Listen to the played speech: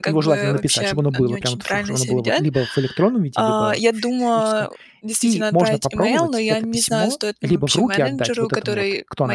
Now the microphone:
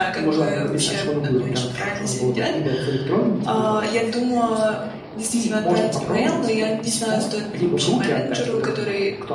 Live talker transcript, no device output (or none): none